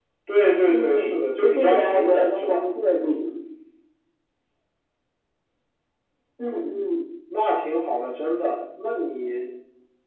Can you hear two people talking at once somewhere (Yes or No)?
Yes